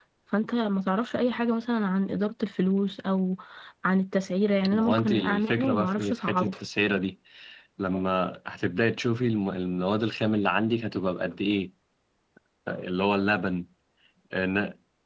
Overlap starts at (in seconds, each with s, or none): 4.7 s